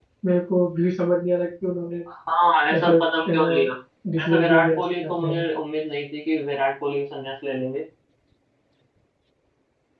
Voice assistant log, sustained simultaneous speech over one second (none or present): present